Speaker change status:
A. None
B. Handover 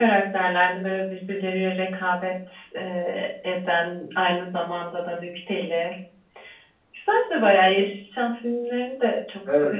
B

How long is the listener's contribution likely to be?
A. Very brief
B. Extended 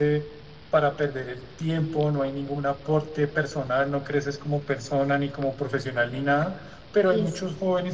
A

